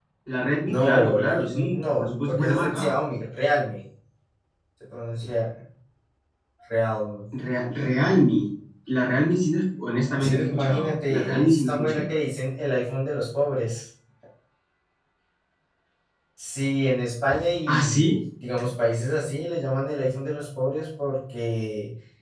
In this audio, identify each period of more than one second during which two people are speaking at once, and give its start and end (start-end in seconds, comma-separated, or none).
0.7-2.9, 10.2-12.0